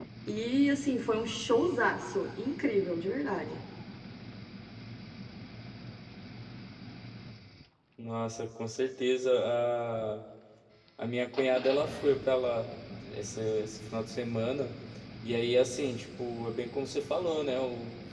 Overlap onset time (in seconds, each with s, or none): none